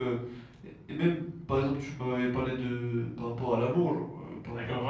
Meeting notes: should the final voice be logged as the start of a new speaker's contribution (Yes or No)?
Yes